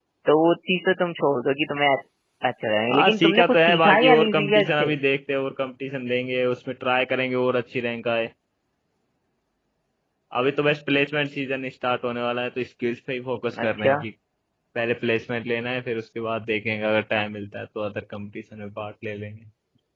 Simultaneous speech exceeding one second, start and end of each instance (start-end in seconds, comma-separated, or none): 2.9-4.9